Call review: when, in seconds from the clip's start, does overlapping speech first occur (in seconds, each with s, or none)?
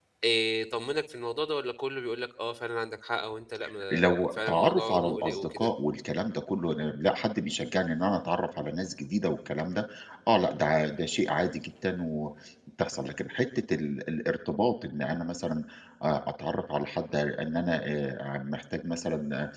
3.9 s